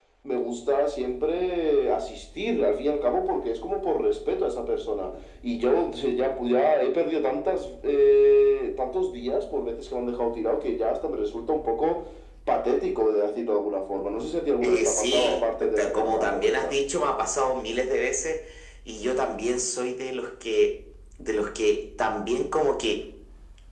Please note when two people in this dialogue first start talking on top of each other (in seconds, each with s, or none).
14.6 s